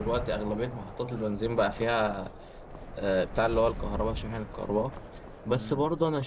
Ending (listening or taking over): listening